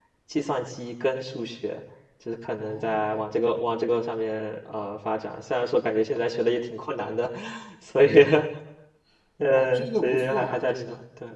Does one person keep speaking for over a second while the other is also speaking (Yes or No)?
Yes